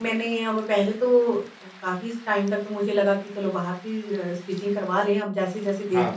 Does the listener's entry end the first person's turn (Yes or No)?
No